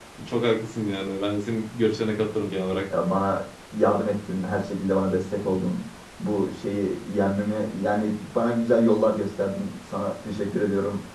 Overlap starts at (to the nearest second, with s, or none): none